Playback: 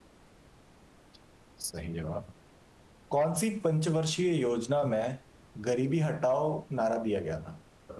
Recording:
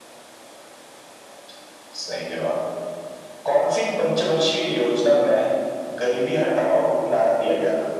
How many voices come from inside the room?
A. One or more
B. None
B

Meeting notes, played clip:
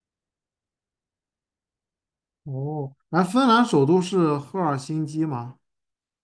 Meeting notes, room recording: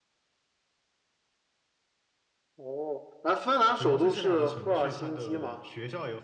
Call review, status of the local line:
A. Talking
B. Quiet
A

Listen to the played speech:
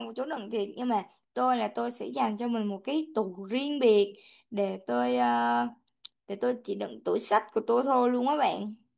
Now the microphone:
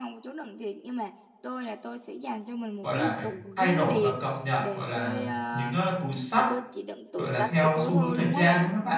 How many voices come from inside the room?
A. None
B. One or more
B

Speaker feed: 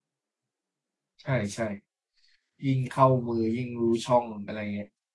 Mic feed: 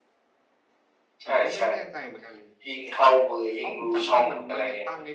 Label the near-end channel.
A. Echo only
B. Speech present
B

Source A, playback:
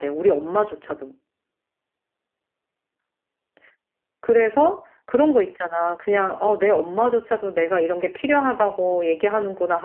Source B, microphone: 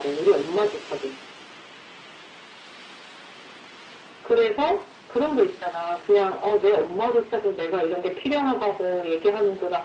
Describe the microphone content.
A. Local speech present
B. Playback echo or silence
B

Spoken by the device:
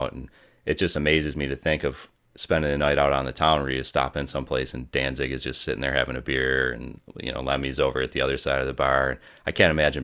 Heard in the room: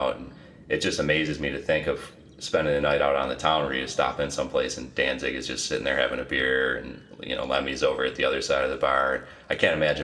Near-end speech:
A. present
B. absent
B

